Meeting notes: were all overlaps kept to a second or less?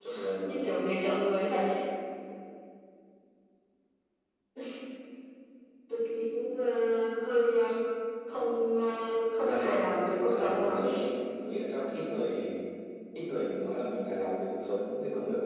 No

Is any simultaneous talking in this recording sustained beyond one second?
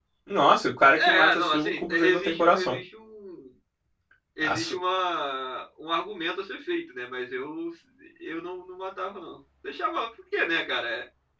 Yes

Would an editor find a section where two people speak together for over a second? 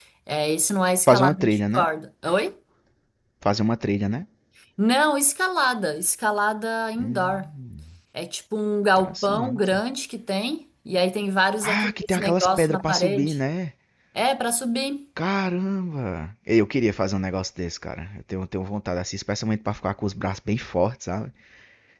Yes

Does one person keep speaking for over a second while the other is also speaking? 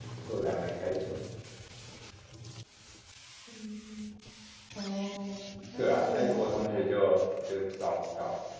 Yes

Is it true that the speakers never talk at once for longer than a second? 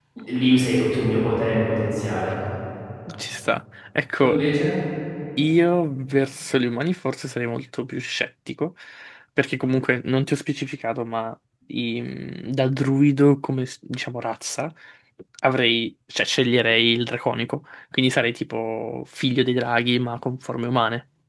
Yes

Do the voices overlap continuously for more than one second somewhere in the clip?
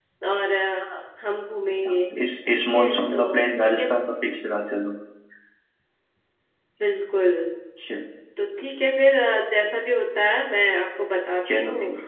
Yes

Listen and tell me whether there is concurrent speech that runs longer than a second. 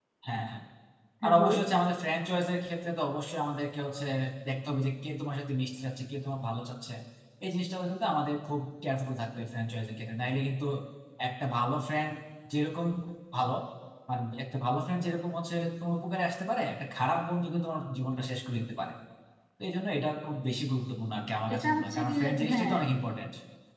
Yes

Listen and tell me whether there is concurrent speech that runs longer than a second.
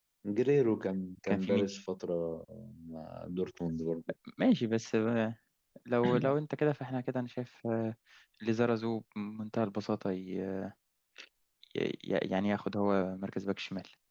No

